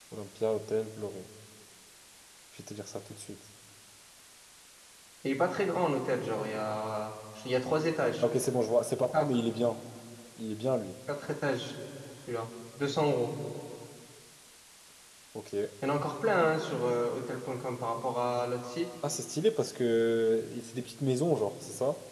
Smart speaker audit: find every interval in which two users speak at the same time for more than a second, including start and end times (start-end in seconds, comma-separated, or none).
none